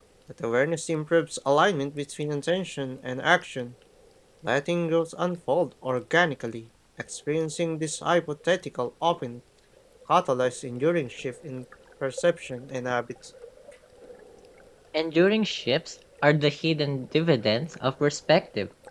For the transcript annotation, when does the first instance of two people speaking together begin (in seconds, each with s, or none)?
none